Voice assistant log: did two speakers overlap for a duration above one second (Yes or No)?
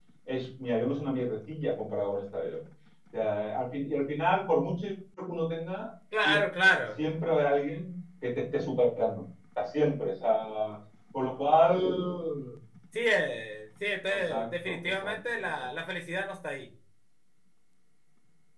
Yes